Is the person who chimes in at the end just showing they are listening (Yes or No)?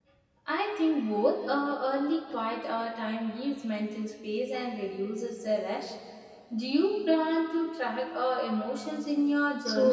No